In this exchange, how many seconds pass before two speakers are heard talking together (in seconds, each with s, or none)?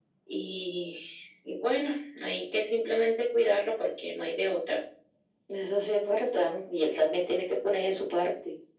none